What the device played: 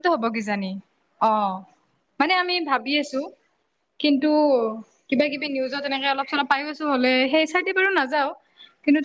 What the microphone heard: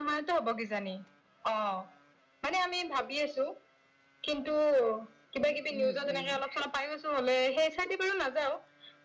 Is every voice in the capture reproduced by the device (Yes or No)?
No